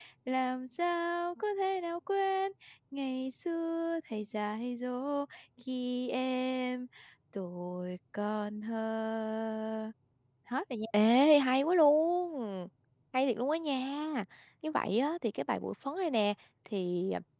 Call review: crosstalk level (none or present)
none